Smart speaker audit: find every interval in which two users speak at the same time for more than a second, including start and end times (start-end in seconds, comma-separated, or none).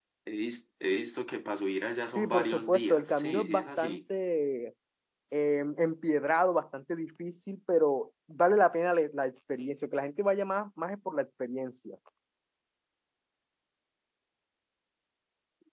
2.1-4.0